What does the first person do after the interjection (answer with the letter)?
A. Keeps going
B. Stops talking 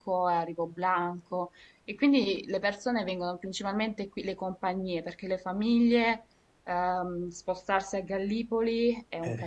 A